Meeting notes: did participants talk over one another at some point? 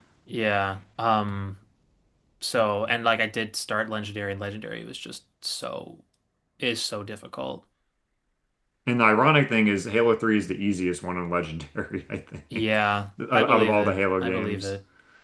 Yes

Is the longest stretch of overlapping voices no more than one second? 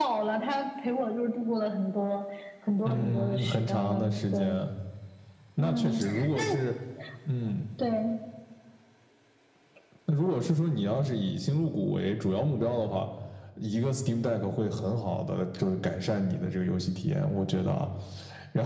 No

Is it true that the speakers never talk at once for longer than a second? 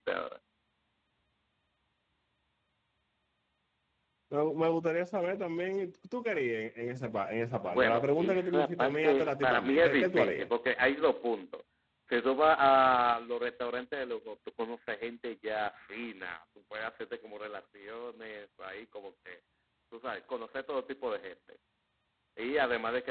No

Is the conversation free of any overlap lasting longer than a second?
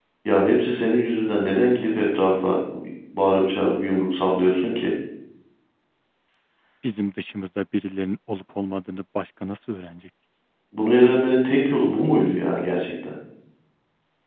Yes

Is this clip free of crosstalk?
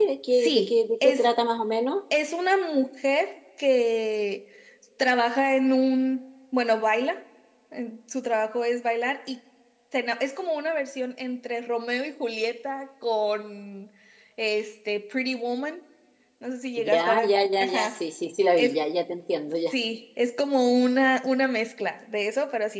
No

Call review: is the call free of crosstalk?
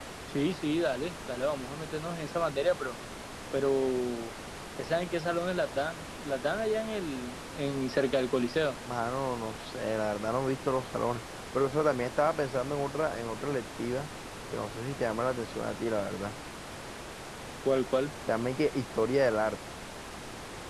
Yes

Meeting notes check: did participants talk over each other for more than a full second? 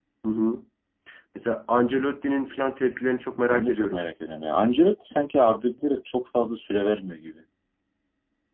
No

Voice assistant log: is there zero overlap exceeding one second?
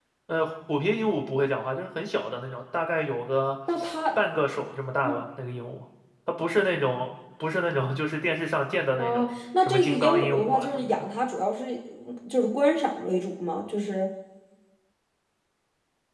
No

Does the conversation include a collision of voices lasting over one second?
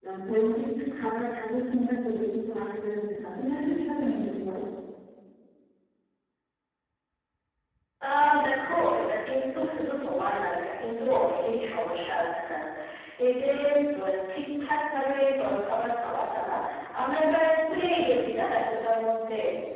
No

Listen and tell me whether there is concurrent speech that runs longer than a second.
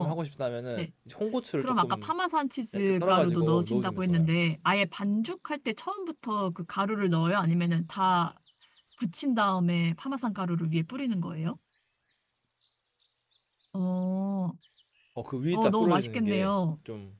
Yes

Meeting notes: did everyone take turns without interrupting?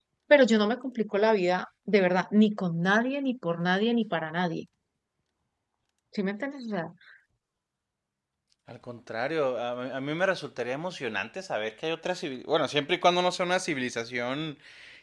Yes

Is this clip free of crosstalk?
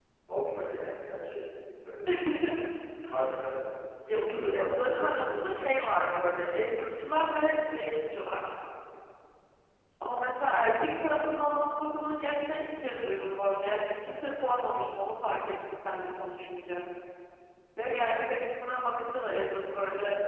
No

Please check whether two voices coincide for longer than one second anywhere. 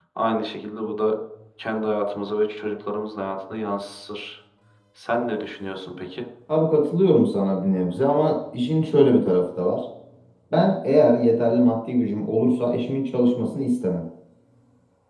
No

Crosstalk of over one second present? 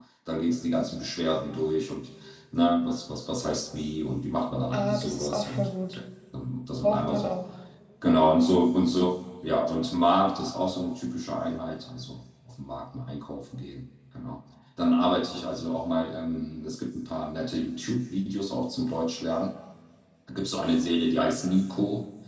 Yes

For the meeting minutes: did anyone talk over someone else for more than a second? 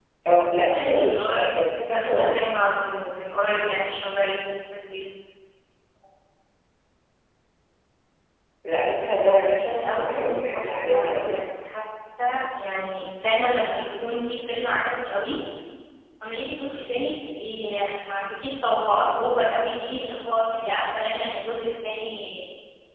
Yes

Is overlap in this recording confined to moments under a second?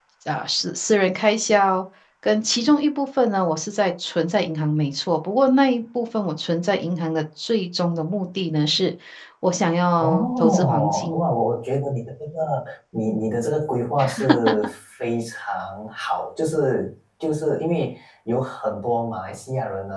No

